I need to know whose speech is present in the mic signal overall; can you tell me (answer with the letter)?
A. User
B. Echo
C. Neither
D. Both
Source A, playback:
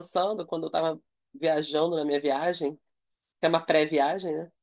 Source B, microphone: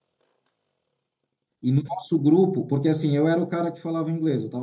A